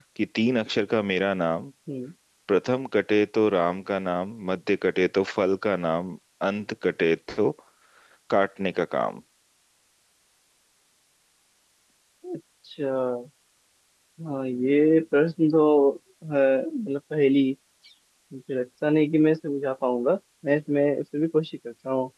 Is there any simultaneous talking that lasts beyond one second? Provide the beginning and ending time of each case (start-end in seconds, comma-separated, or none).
none